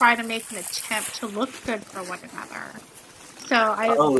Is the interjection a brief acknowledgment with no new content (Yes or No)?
No